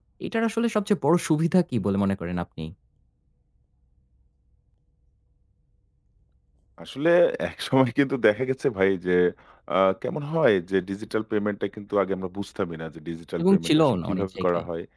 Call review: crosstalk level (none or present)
present